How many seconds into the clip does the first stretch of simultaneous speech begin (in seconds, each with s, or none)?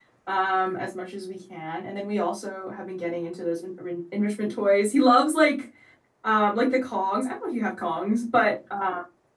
none